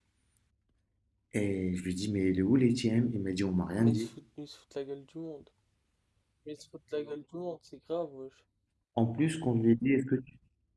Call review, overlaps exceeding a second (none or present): none